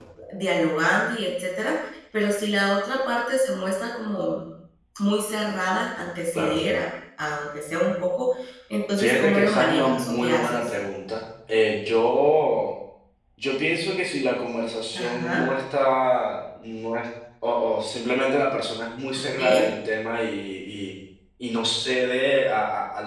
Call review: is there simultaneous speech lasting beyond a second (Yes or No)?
Yes